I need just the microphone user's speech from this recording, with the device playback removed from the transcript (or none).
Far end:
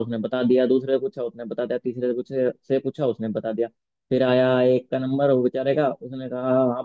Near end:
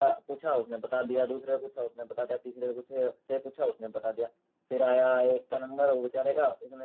none